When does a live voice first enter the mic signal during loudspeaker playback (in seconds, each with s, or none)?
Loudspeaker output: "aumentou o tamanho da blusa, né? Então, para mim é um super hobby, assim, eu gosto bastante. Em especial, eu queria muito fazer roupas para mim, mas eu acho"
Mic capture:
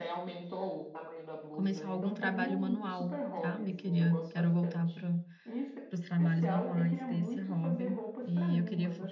1.5 s